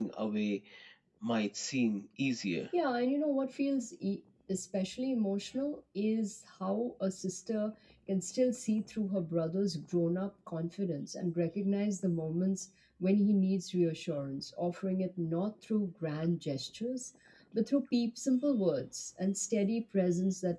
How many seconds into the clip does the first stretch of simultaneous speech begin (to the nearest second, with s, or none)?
none